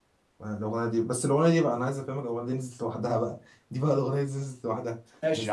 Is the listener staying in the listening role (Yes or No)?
No